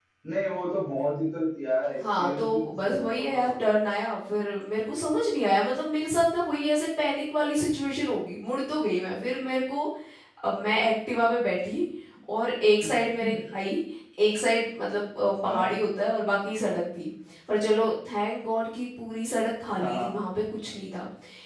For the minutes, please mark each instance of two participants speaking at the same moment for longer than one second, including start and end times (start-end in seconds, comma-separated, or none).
2.2-3.6